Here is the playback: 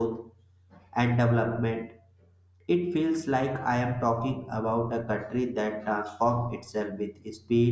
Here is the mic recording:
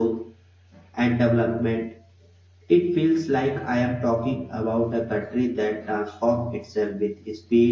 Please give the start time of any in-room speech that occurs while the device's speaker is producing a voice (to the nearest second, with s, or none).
none